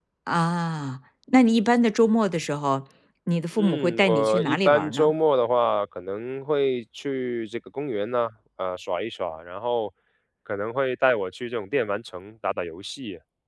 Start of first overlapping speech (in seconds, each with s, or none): 3.6 s